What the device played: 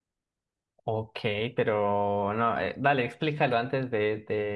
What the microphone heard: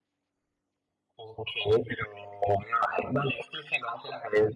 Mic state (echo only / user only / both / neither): echo only